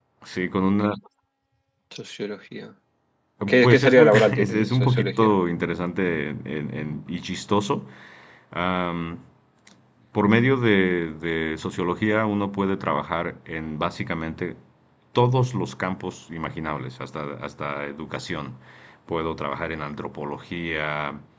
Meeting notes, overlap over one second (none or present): present